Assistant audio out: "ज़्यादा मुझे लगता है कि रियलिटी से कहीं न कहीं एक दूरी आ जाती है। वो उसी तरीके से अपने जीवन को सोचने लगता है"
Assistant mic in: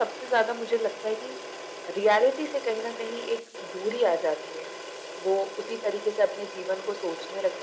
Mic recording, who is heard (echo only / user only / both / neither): echo only